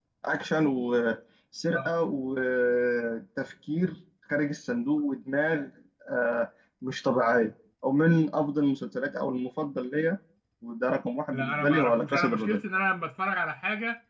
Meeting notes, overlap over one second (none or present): present